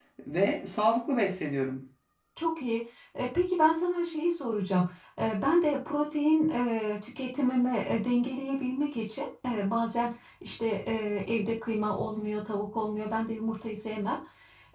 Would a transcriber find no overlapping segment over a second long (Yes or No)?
Yes